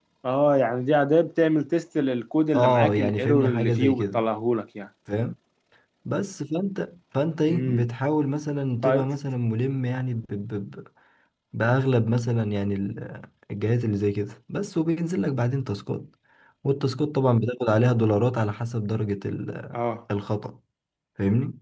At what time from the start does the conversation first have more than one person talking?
2.5 s

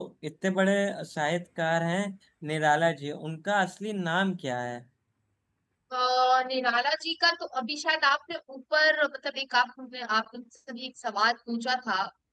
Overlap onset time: none

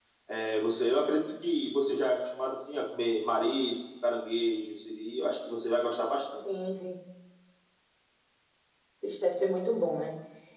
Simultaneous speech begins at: none

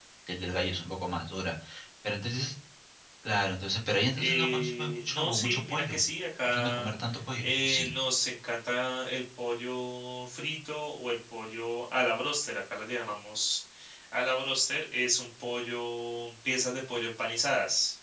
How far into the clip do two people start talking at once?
4.2 s

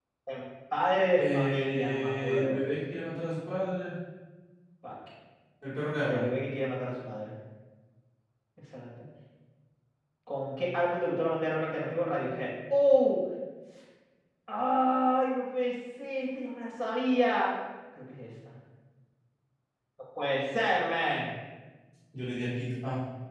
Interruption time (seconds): 1.2 s

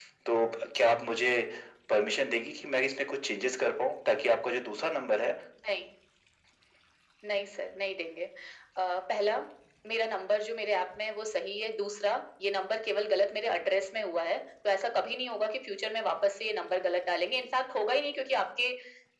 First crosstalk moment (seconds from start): none

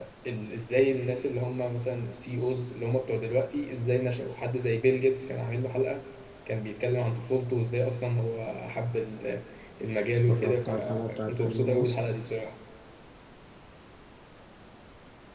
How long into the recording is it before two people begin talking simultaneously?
10.3 s

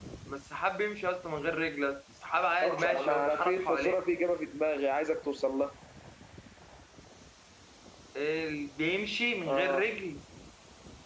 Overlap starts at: 2.6 s

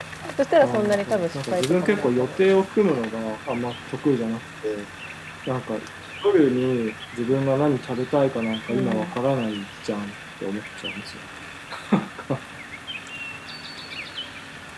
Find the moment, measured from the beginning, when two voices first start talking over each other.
0.6 s

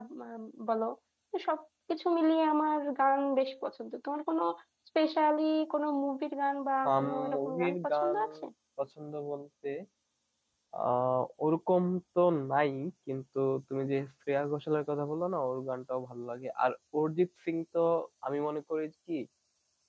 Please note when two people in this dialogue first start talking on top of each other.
6.8 s

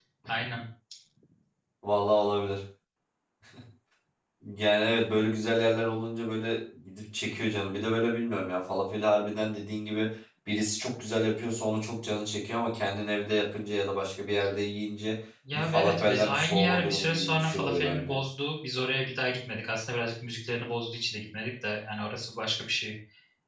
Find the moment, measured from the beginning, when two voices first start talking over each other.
15.5 s

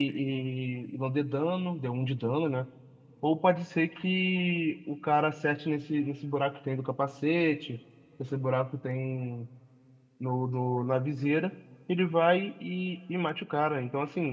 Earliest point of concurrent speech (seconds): none

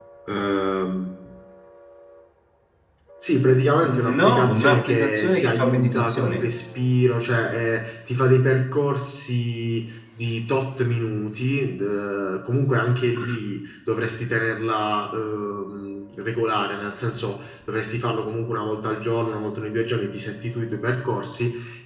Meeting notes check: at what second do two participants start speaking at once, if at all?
4.1 s

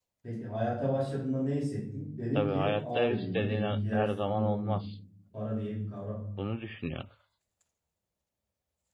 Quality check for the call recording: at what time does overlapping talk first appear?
2.4 s

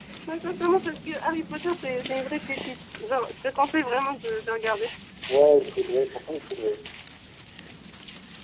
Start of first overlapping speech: none

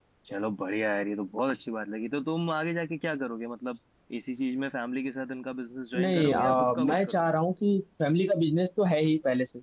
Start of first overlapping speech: 5.9 s

